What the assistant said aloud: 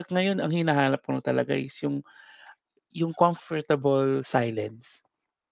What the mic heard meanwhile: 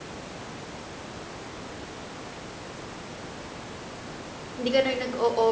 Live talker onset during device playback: 5 s

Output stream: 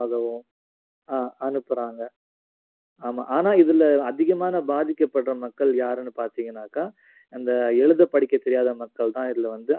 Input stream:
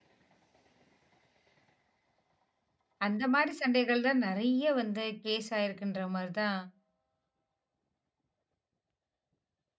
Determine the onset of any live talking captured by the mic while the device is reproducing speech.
3 s

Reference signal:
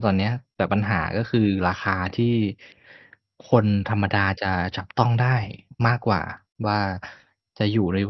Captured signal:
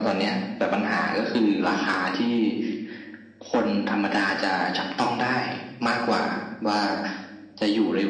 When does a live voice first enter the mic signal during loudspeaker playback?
none

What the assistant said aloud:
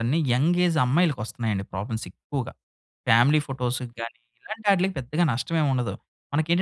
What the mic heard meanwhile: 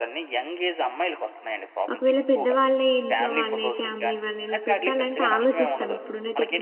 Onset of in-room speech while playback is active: 2 s

